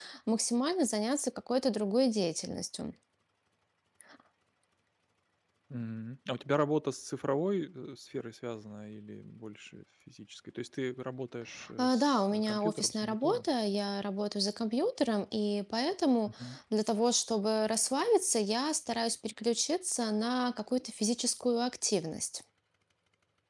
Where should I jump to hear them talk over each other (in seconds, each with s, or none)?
11.8 s